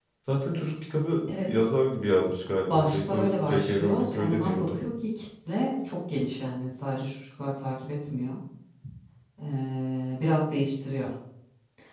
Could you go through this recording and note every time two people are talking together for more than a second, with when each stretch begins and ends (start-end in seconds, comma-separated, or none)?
2.7-4.8